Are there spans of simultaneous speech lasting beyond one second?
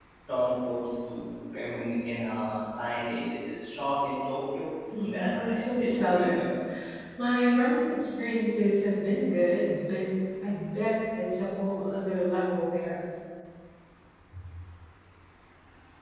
Yes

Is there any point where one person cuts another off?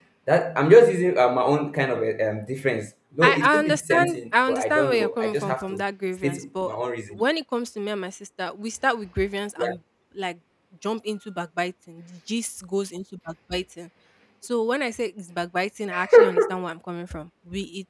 Yes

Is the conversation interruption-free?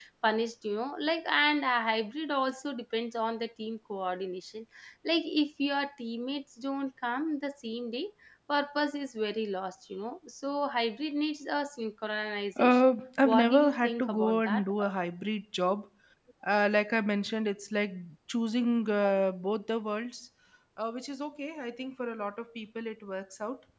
No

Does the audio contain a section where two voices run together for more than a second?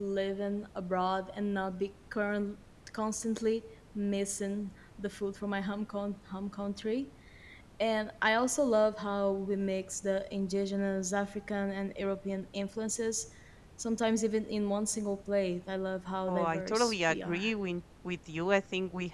Yes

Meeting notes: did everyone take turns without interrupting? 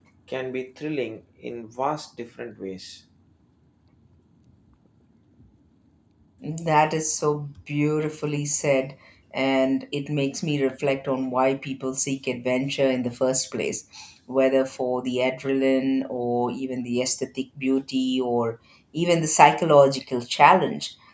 Yes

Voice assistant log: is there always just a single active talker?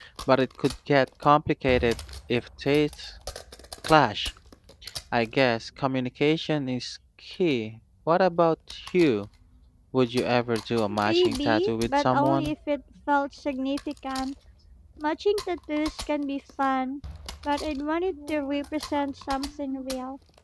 No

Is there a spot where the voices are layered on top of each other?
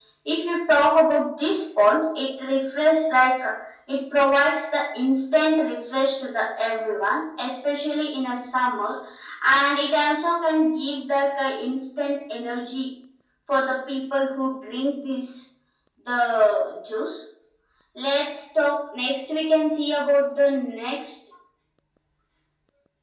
No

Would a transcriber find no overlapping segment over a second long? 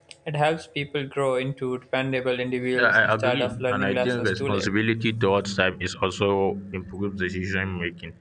No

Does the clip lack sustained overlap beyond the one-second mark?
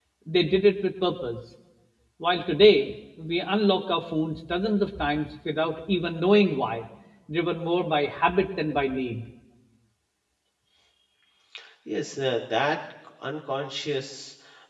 Yes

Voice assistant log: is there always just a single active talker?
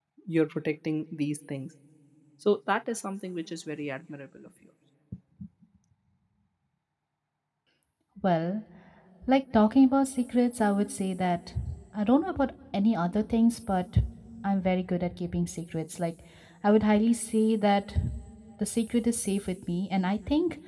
Yes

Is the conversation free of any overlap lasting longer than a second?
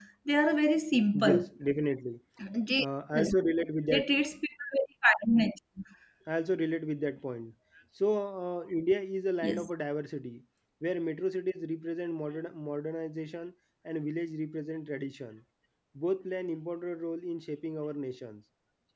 Yes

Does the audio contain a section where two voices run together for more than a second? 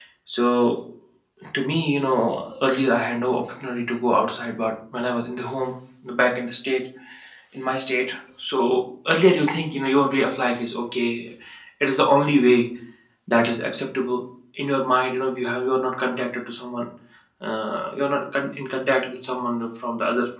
No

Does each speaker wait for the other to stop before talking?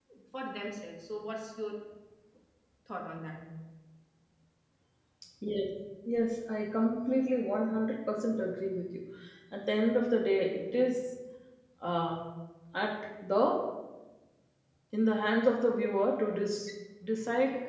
Yes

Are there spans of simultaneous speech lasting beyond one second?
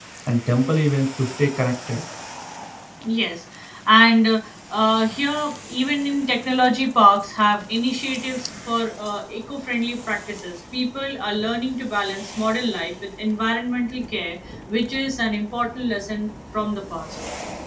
No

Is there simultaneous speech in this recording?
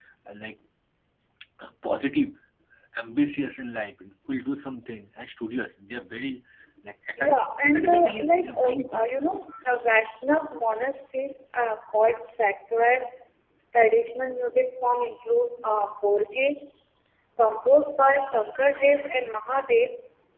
Yes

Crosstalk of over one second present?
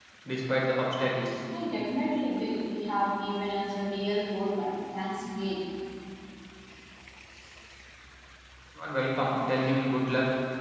No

